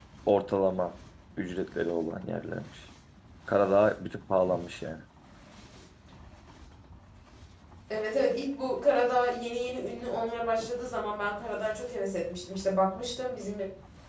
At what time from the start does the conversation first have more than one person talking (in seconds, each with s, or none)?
none